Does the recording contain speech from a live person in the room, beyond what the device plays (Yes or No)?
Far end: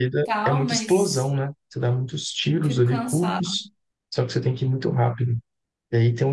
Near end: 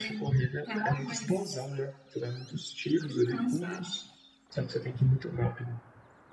No